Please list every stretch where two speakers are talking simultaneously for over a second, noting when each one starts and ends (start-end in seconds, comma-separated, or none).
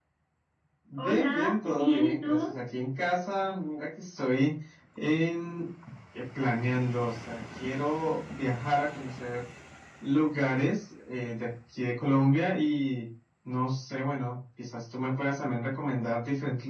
1.0-2.5